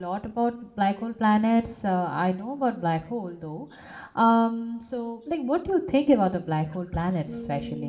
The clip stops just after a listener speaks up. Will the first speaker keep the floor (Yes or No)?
No